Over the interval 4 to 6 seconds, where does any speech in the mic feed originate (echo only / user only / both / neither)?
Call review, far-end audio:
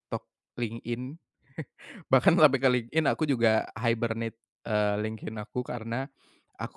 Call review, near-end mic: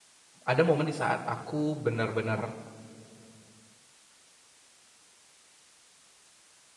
neither